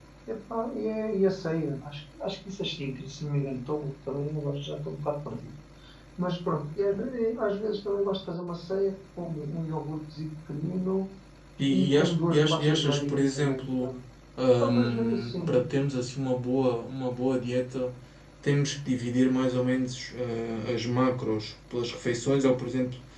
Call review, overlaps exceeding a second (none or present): present